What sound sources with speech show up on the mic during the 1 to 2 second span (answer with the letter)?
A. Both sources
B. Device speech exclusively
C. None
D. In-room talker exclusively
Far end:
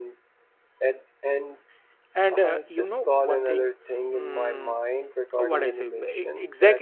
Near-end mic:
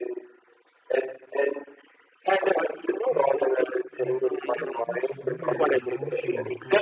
B